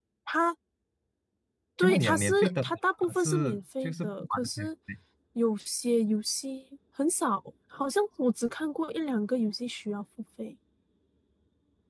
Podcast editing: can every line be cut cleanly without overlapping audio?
No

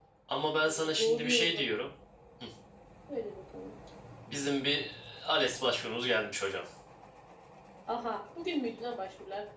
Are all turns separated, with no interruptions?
No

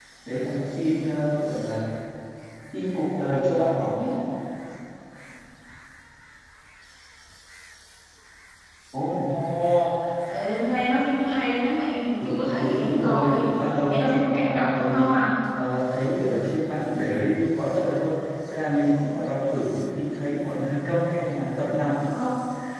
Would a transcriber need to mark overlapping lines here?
Yes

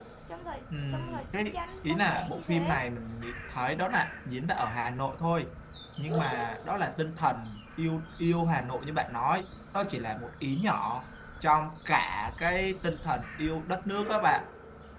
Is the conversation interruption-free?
No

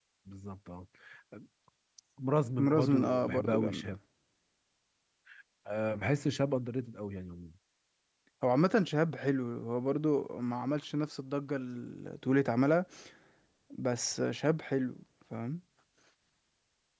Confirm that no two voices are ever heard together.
No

